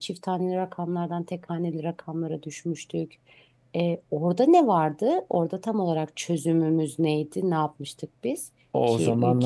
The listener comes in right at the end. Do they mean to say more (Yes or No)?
Yes